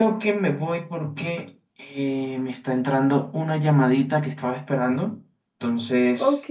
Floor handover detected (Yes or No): No